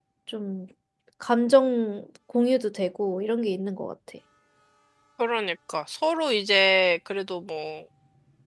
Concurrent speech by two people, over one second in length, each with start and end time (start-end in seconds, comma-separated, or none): none